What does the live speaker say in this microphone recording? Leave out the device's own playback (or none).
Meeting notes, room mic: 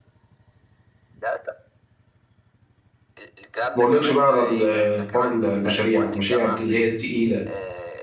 اقولكش بقى على ال- حوار المشاريع المشاريع اللي هي التقيله